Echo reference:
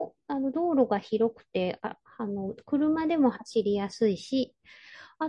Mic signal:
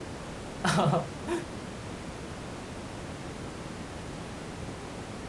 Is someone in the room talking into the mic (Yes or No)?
Yes